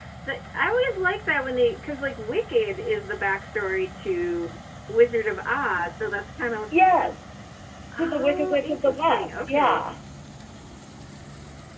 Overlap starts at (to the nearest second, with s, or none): 8 s